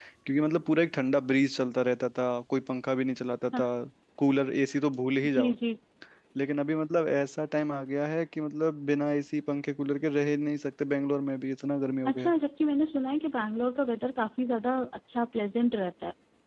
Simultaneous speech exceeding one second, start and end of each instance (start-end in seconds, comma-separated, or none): none